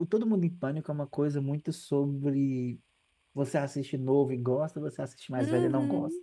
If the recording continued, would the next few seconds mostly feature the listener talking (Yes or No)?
Yes